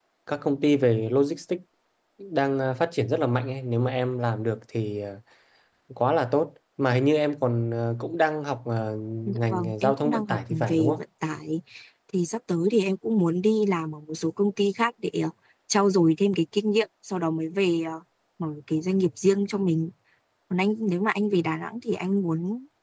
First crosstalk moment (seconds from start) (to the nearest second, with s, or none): 9 s